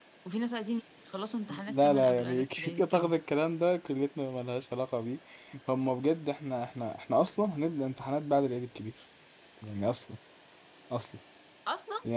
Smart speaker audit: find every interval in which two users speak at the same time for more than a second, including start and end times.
1.7-3.1

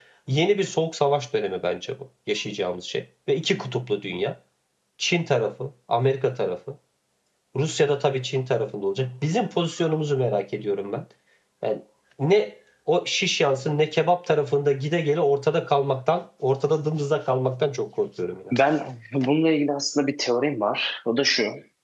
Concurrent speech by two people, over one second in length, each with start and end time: none

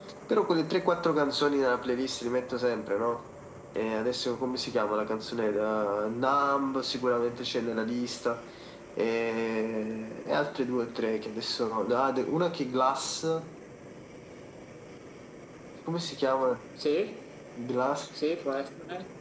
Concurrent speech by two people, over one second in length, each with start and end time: none

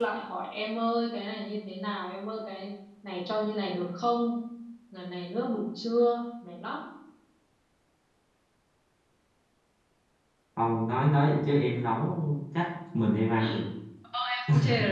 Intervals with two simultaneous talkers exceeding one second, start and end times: none

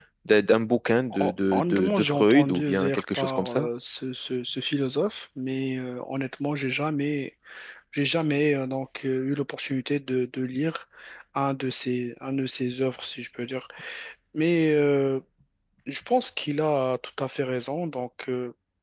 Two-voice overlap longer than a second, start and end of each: 1.2-3.7

